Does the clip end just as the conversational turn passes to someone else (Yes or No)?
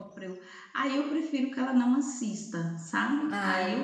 No